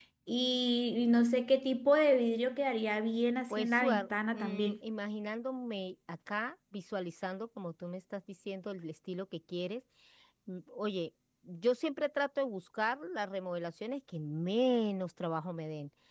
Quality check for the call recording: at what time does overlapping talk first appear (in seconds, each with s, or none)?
3.5 s